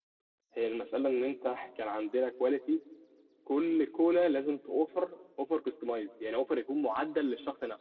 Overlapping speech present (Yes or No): No